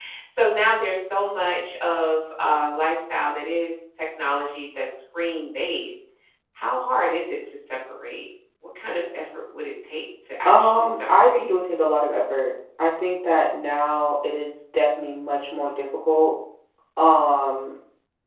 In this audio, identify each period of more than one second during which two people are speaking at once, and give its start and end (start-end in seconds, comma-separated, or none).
10.4-11.8